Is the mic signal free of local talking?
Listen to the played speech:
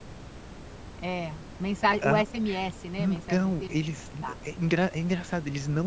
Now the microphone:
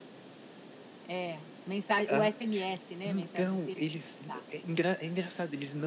Yes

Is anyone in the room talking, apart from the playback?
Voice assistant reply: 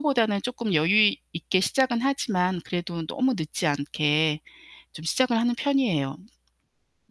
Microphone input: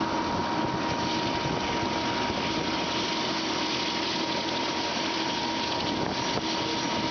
No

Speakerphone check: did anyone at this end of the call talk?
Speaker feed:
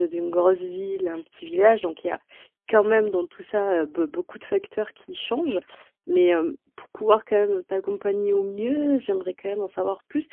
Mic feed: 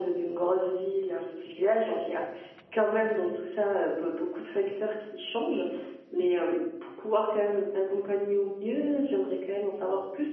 No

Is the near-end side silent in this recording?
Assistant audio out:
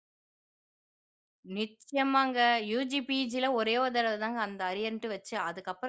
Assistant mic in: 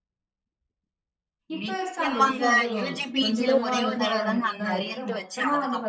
No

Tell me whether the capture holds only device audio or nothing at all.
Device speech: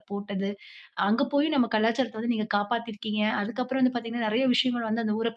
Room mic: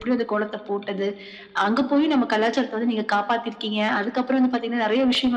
Yes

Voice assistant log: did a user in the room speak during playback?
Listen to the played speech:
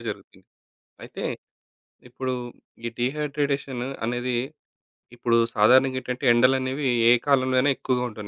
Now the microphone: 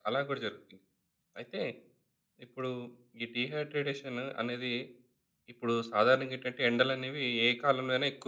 No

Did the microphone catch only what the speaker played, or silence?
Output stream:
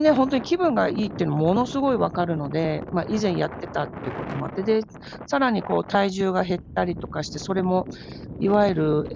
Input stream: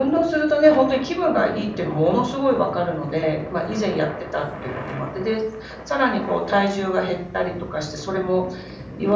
Yes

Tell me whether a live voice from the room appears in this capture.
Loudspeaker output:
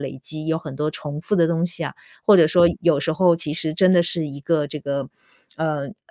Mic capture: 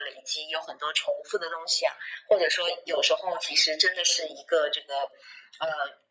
No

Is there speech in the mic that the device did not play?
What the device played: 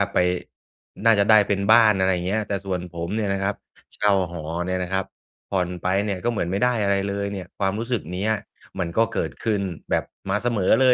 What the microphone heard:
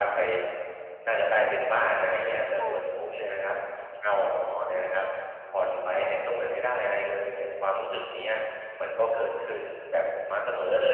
Yes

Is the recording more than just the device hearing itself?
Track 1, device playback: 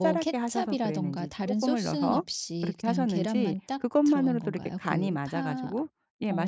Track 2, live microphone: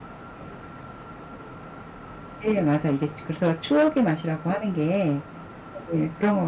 Yes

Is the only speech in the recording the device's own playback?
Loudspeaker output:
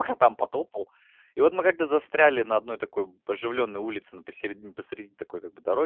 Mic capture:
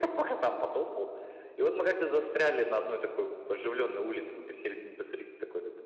Yes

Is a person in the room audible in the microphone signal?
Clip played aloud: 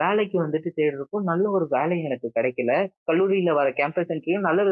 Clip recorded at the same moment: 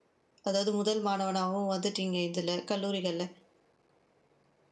Yes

